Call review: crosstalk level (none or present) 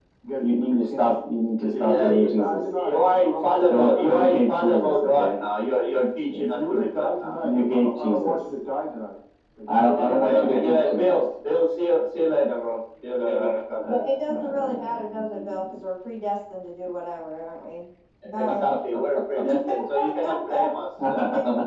present